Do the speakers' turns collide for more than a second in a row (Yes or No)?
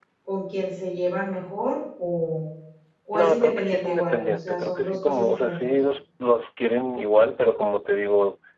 Yes